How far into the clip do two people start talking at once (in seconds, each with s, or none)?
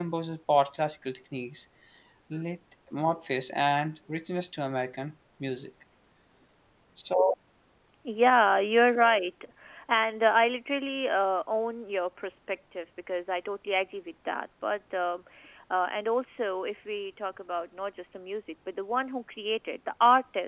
none